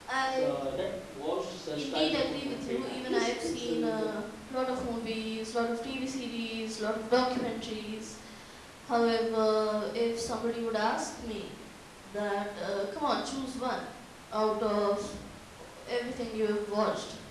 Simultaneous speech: Yes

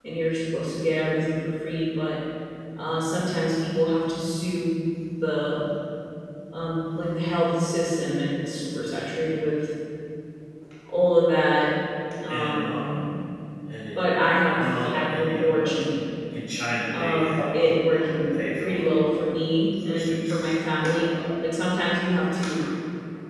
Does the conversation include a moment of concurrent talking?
Yes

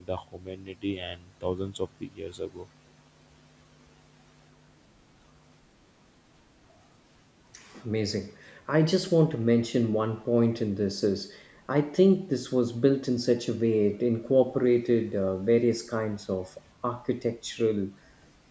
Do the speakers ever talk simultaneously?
No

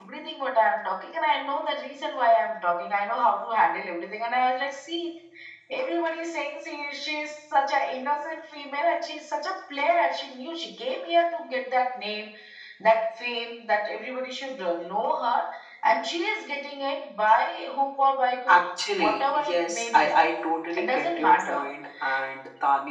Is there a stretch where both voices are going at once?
Yes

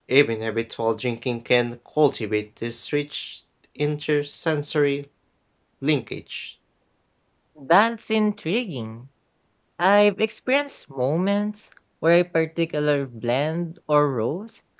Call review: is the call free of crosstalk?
Yes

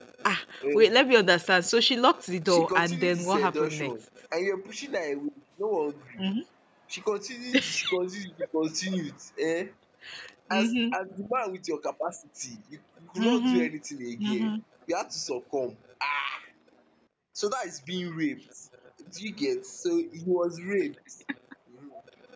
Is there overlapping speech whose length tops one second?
Yes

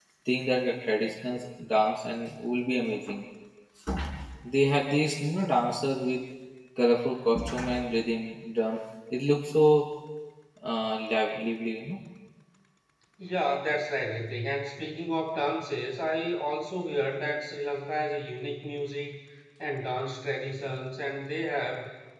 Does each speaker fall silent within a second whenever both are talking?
Yes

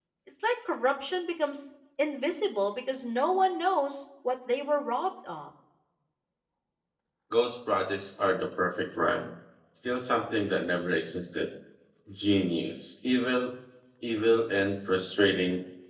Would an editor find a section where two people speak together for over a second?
No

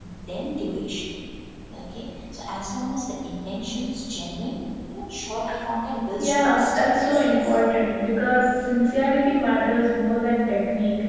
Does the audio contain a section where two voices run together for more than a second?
Yes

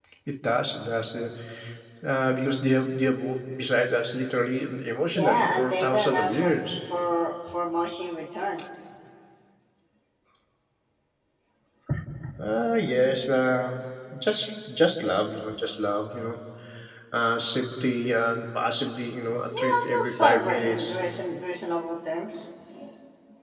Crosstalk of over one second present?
Yes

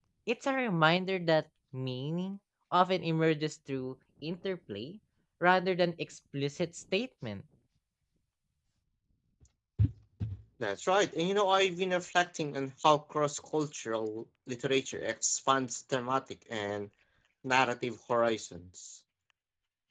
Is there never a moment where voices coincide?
Yes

